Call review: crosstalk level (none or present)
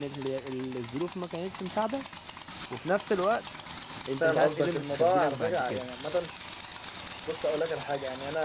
present